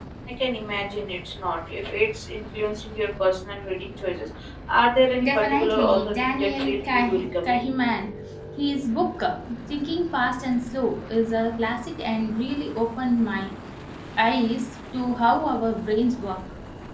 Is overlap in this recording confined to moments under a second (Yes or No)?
No